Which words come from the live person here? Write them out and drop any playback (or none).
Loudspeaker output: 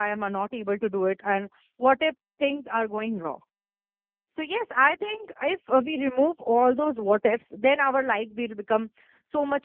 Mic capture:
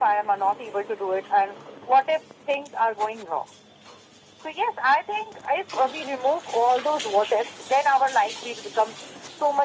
none